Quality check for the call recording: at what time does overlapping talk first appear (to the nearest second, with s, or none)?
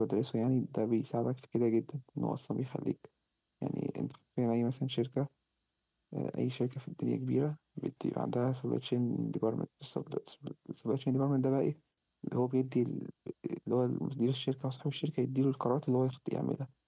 none